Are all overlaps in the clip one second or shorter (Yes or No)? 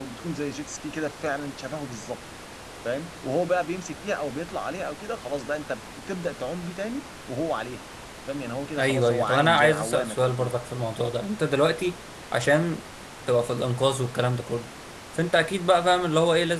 No